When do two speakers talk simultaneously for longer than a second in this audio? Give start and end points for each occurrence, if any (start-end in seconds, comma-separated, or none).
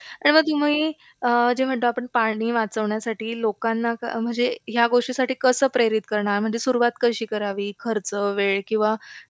none